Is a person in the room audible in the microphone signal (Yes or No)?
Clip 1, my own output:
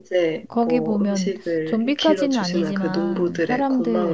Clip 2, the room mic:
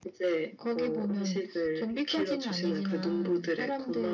No